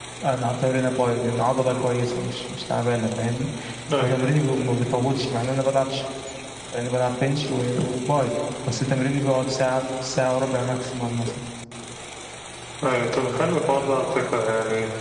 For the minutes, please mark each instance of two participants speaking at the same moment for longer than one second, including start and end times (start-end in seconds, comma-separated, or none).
none